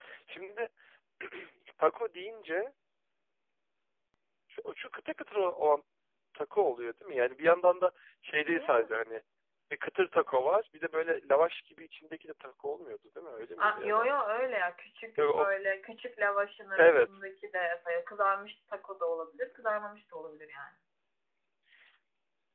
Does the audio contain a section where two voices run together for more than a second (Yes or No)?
No